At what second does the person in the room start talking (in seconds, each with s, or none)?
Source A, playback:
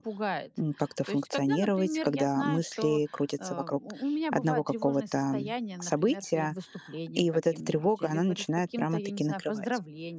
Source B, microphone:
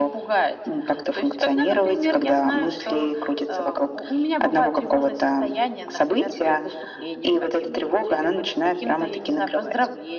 none